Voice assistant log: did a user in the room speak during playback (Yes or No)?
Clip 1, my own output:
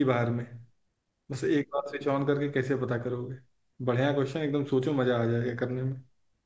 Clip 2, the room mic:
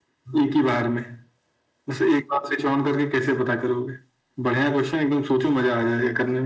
No